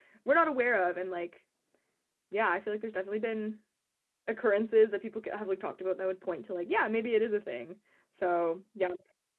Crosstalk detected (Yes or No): No